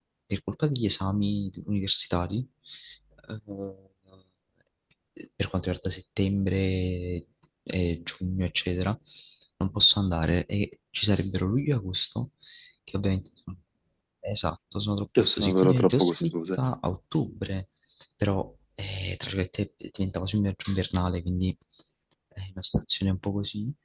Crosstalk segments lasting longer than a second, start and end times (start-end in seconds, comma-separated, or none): 15.2-16.6